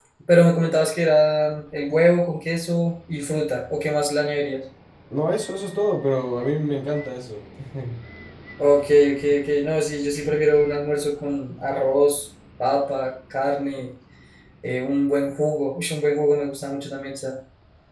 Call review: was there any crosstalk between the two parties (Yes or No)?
No